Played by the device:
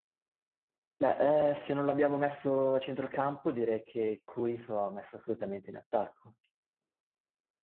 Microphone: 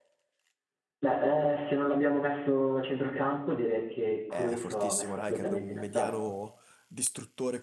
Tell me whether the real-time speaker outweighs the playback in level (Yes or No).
No